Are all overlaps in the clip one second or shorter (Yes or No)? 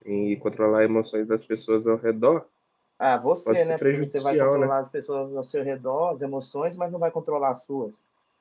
No